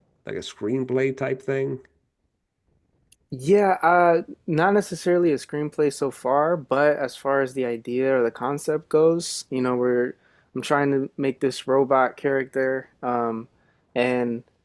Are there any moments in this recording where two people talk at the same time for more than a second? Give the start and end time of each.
none

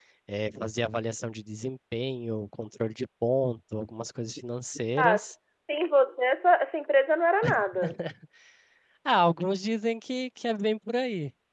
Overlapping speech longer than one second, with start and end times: none

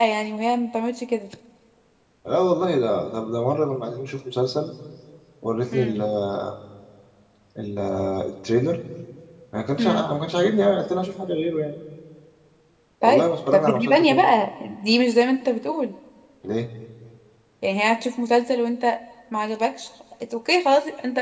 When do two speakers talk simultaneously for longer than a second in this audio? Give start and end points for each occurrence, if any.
13.0-14.2

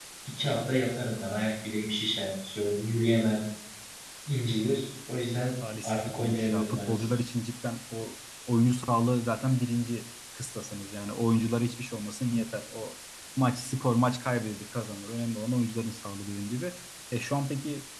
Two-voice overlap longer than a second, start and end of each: 5.8-7.1

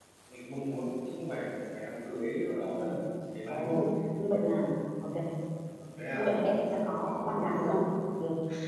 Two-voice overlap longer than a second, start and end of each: none

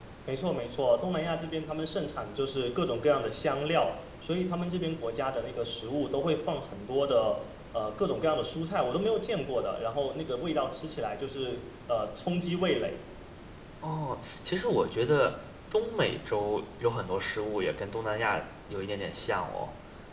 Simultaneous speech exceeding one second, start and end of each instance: none

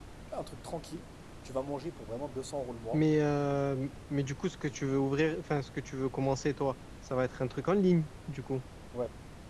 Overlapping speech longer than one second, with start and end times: none

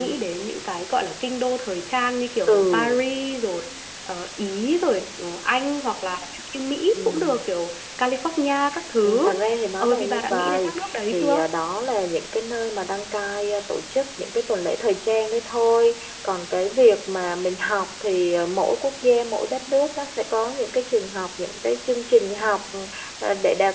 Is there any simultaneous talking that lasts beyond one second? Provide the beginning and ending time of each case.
9.8-11.4

